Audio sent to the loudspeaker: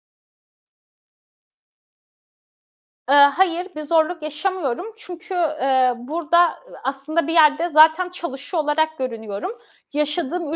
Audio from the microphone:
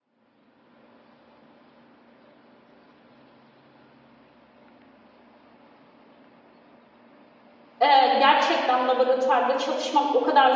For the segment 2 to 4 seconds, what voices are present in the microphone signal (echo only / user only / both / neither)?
neither